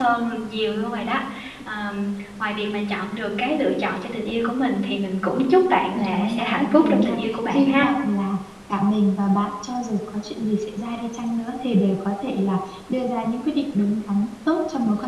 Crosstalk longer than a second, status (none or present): present